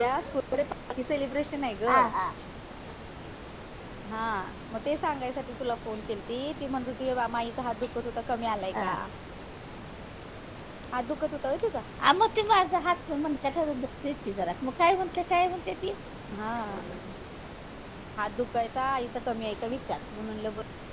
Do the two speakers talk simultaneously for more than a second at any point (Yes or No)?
No